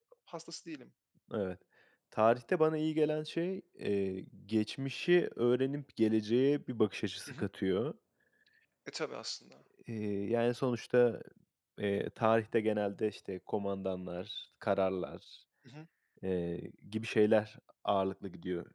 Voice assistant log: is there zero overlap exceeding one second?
Yes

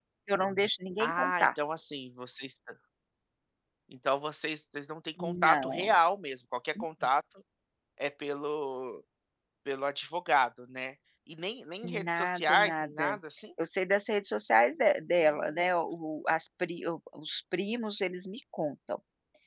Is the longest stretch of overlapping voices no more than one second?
No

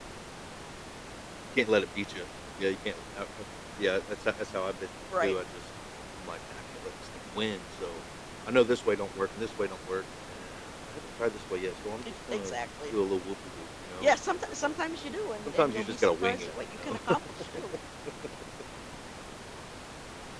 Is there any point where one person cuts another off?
Yes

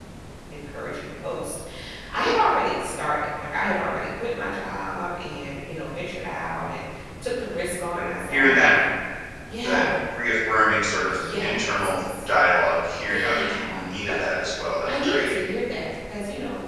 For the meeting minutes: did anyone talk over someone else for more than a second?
Yes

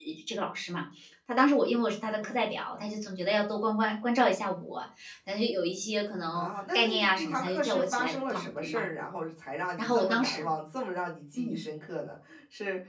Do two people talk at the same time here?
Yes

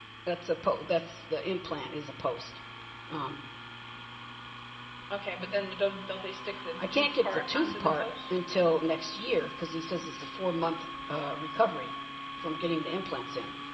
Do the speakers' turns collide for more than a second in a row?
Yes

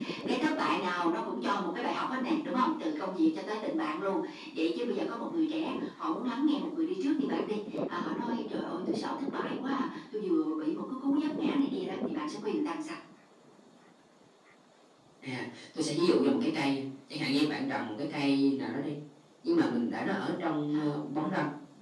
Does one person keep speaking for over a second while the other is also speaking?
No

